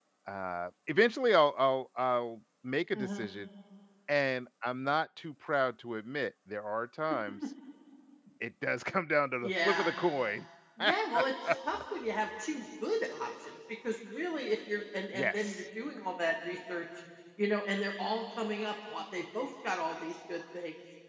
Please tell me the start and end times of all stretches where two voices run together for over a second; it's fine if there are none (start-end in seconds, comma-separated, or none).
none